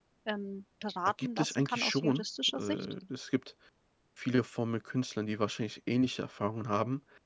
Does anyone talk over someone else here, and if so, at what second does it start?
1.2 s

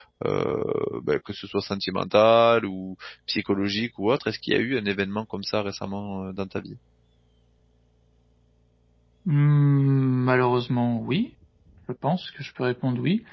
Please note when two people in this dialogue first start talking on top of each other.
none

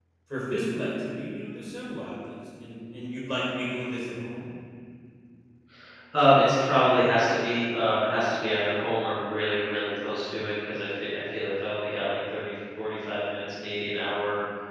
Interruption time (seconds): none

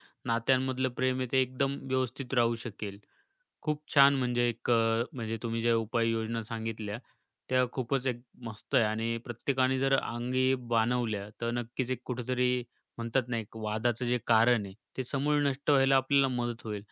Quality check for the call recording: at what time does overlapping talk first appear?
none

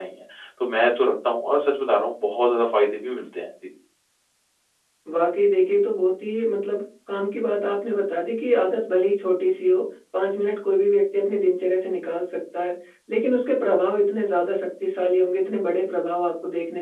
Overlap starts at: none

